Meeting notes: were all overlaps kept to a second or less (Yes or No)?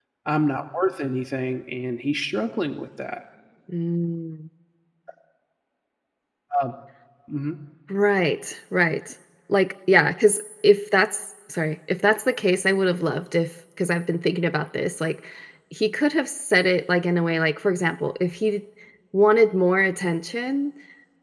Yes